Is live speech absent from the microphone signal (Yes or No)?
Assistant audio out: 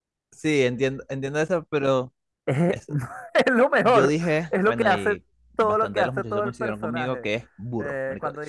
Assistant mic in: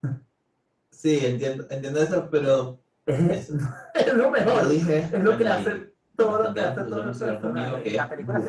No